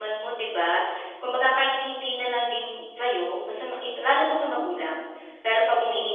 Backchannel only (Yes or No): Yes